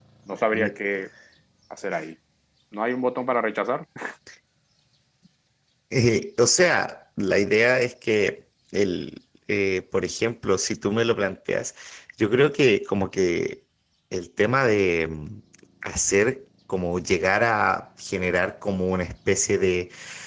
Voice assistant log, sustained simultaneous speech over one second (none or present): none